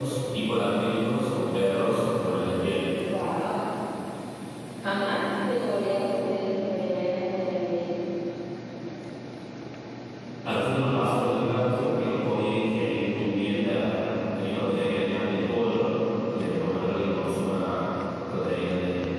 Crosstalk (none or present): none